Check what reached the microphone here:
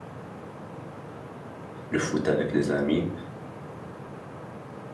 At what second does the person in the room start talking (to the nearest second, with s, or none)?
2 s